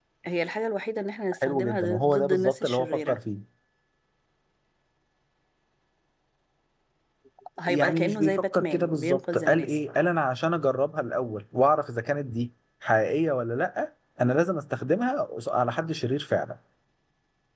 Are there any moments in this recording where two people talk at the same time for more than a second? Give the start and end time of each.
1.3-3.2, 7.7-9.8

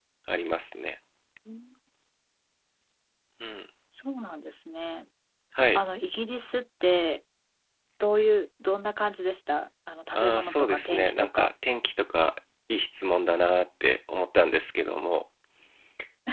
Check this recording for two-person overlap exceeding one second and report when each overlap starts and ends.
10.1-11.5

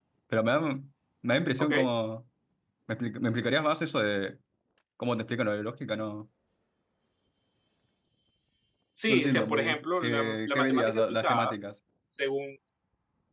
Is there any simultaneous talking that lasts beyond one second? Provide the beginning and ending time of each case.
9.0-11.5

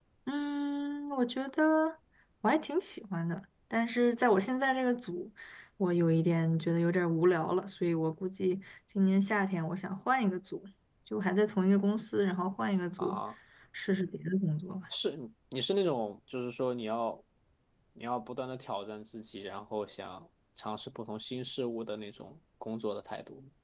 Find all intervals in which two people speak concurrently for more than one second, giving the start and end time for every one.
none

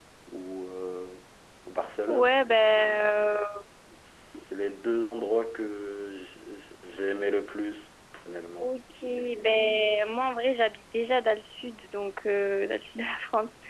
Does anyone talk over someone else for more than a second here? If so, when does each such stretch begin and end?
none

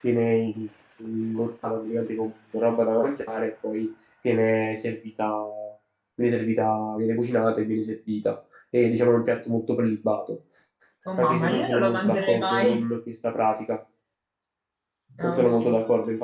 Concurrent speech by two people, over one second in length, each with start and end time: 11.2-12.9

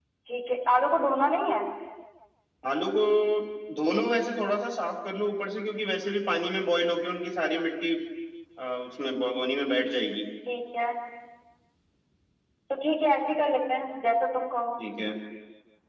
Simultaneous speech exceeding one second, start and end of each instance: none

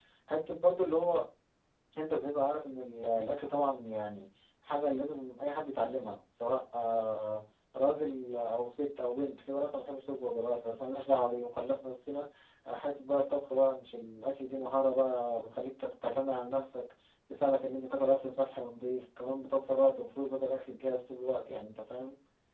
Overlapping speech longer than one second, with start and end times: none

